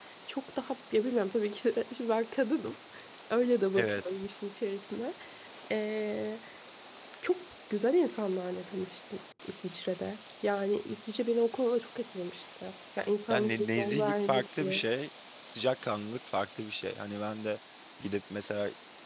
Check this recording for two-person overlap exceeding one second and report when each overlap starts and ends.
13.3-14.9

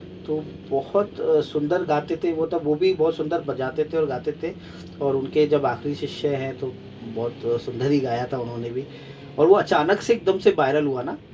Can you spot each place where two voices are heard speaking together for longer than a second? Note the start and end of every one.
none

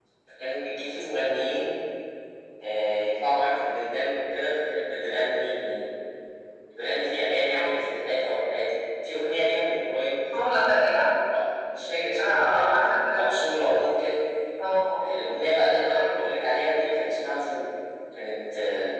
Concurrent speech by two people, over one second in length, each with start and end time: 12.2-13.9

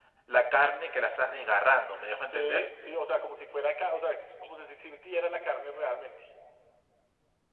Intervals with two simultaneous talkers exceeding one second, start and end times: none

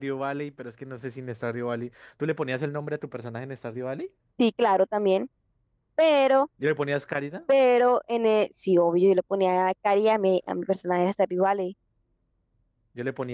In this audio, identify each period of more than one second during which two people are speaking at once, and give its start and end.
none

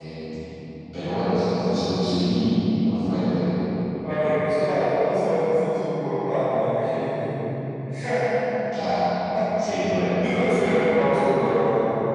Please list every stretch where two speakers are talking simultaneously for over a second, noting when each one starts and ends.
none

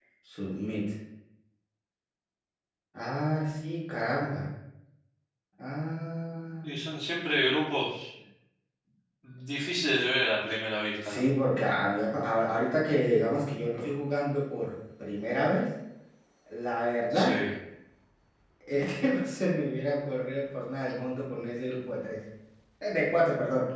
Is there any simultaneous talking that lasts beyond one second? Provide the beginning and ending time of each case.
none

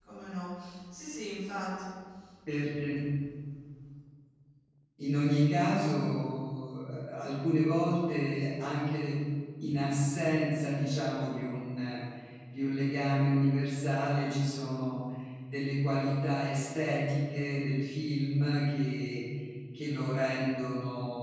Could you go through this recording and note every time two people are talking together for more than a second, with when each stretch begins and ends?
none

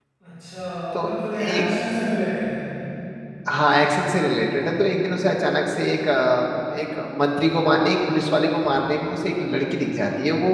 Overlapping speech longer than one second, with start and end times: none

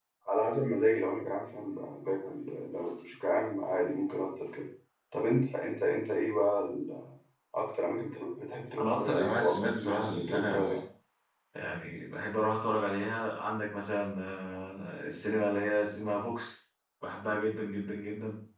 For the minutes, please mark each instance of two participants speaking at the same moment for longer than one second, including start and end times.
8.8-10.8

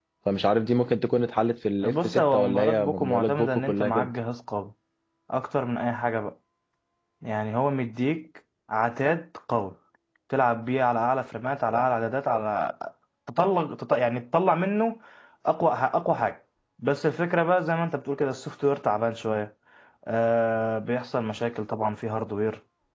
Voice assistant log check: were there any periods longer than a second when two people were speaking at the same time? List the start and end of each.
1.8-4.1

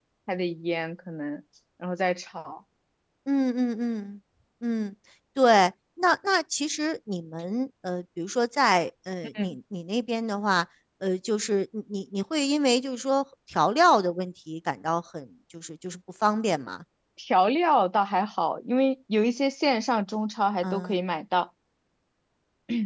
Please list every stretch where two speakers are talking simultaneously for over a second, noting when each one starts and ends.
none

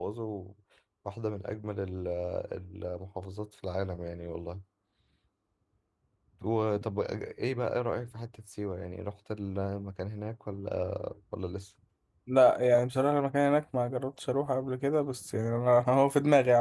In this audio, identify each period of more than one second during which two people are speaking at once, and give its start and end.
none

